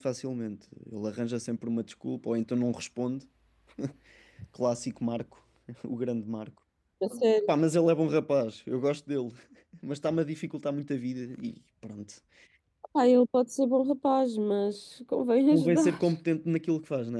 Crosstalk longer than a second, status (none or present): none